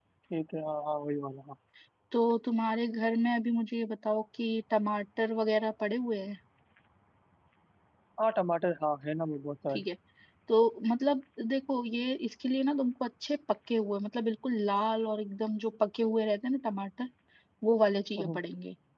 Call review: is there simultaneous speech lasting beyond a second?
No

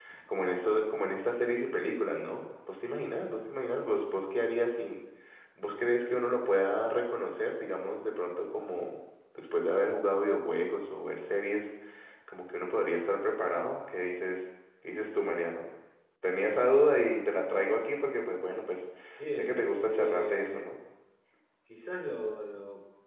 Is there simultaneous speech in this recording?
Yes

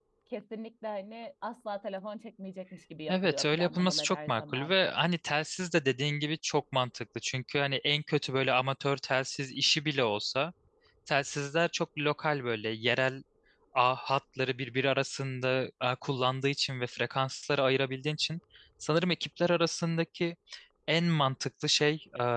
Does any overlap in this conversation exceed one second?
Yes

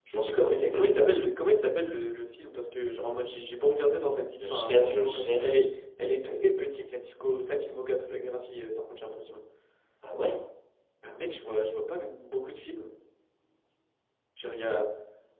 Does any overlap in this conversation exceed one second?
Yes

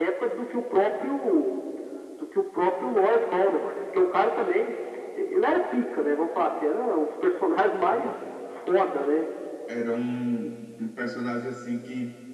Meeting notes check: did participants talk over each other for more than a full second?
No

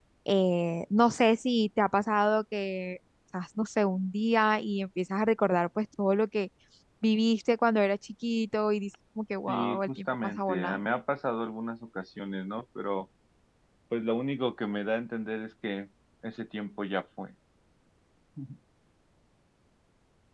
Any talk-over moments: Yes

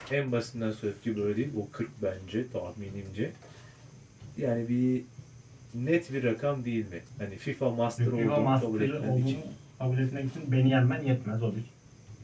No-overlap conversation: No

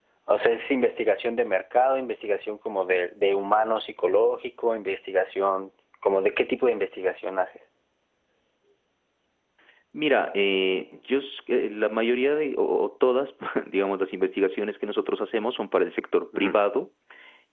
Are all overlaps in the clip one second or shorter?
Yes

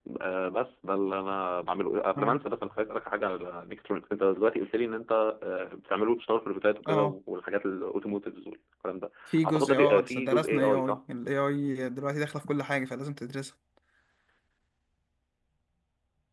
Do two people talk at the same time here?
Yes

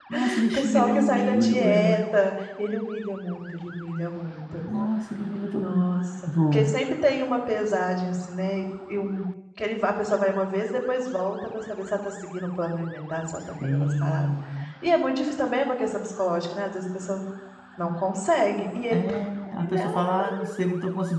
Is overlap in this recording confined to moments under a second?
No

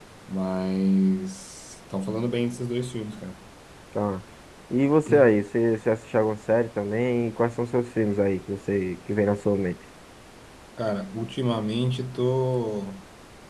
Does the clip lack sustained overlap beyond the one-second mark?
Yes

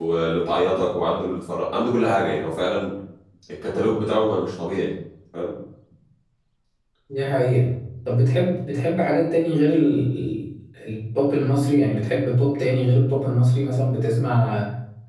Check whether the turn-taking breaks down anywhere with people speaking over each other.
No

